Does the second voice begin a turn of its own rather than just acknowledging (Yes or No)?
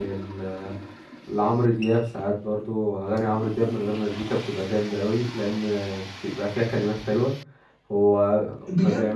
Yes